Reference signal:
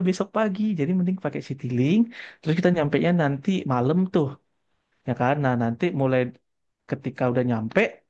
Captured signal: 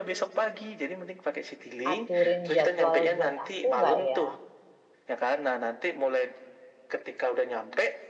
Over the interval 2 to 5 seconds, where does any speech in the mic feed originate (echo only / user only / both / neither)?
both